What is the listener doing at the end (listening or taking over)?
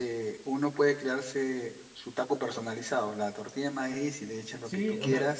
taking over